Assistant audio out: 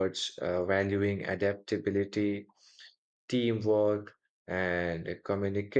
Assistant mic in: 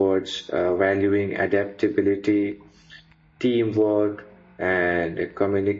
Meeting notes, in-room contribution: none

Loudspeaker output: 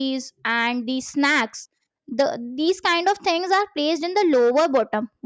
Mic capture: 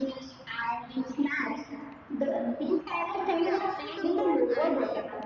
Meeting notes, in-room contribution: present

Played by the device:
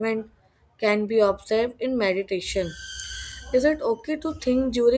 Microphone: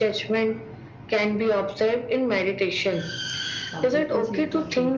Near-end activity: present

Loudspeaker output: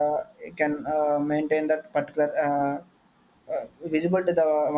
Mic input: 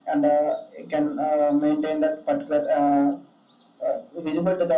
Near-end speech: none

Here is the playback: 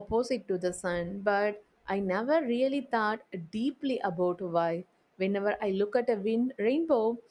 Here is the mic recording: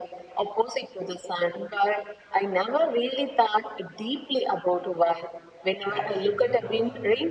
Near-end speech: present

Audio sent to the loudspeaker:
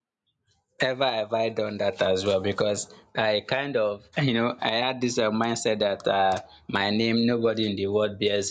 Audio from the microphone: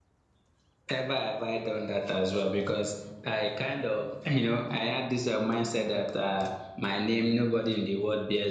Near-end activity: none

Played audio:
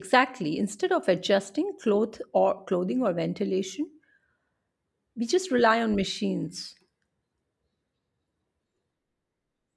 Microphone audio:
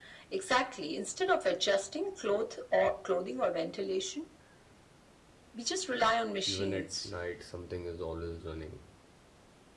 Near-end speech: present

